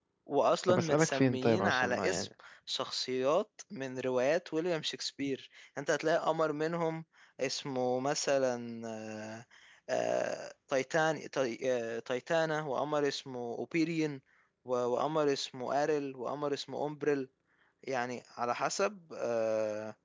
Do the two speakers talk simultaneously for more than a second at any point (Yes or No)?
Yes